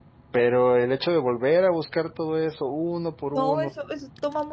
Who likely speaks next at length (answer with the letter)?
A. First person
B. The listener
B